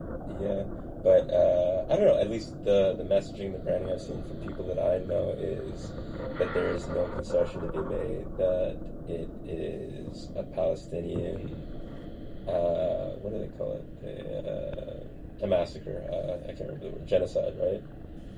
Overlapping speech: No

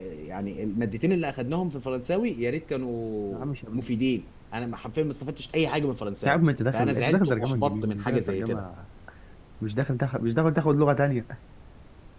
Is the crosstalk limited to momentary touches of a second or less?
No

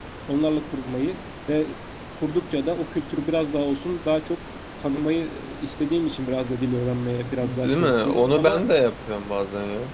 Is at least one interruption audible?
Yes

